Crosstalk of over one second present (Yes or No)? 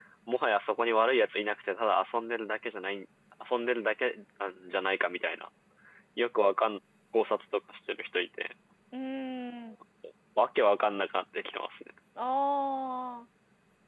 No